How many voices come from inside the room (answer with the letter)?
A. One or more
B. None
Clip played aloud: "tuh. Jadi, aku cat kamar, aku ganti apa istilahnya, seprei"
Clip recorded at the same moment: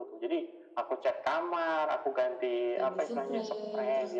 A